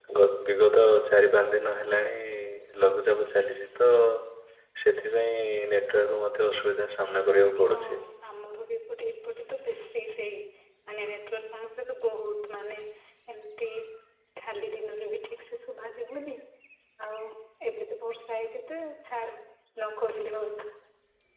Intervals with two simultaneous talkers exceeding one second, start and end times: none

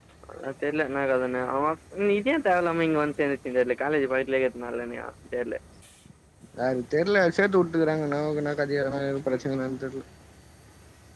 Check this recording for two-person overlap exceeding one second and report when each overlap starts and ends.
none

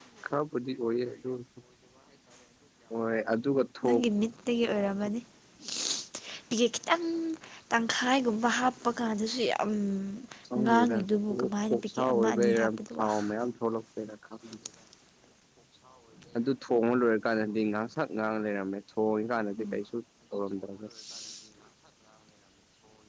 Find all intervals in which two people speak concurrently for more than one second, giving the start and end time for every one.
11.7-13.1

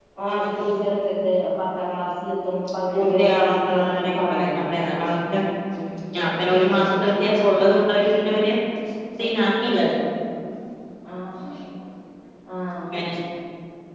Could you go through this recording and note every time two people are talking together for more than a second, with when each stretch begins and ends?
2.9-4.4

